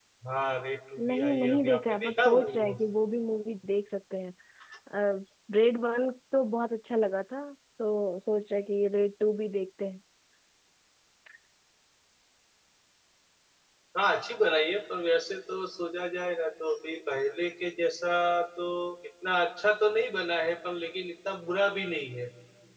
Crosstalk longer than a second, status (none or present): present